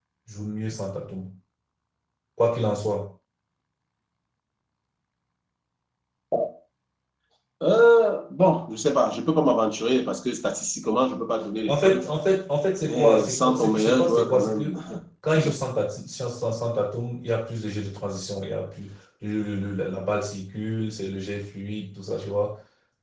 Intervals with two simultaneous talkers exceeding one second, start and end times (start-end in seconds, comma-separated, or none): 12.8-14.7